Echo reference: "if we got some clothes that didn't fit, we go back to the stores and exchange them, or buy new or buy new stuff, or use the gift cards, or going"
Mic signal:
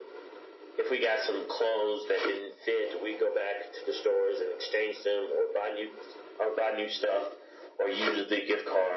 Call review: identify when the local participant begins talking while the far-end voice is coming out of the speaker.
none

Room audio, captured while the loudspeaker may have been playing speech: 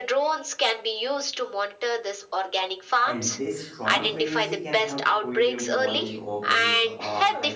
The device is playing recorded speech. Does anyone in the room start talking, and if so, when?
3.0 s

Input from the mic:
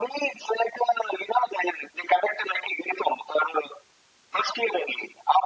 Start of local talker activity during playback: none

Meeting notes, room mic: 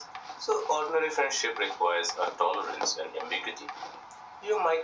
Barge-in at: none

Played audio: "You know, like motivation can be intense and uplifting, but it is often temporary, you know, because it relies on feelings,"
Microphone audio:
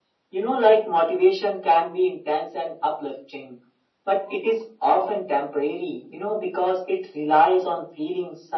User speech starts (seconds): none

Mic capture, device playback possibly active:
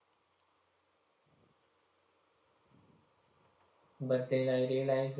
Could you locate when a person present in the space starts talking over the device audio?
4.0 s

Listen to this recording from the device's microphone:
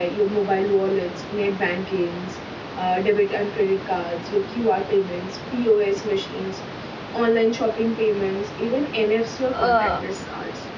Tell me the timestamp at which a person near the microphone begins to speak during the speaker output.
9.5 s

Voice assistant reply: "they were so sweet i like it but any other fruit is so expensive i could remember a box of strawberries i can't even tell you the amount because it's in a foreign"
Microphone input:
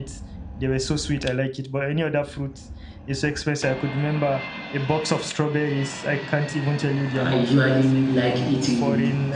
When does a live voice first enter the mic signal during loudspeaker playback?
7.1 s

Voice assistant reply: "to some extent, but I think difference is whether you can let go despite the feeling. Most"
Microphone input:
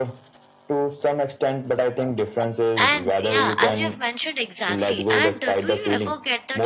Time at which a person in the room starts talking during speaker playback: 2.8 s

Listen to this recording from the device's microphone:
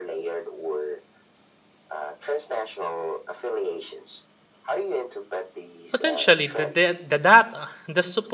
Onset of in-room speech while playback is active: 5.9 s

